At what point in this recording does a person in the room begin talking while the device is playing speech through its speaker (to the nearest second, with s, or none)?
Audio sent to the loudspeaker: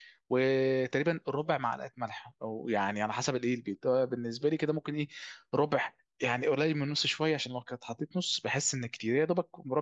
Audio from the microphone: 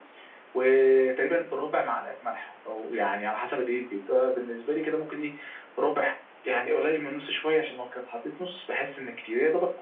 none